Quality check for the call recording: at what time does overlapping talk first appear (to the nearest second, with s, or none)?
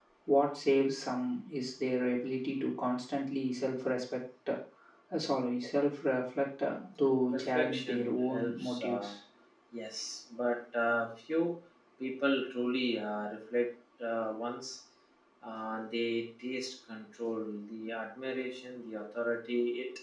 7 s